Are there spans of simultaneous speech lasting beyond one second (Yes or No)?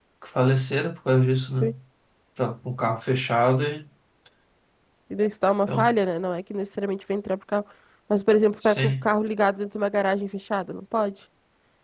No